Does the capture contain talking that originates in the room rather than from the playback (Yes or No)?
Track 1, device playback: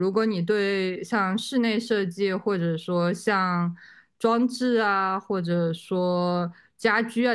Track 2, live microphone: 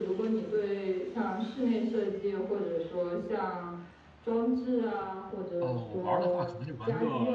Yes